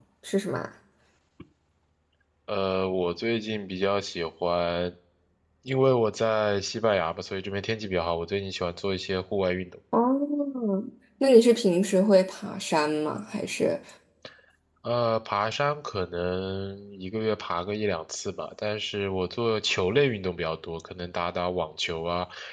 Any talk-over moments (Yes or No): No